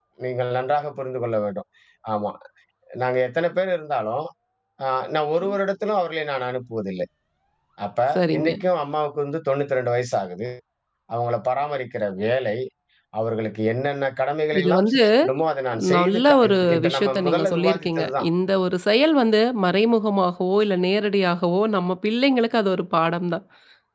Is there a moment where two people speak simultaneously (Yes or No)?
Yes